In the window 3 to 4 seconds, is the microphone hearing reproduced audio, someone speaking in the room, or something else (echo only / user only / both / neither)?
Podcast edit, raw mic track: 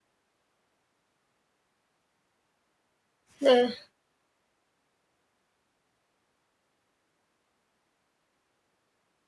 user only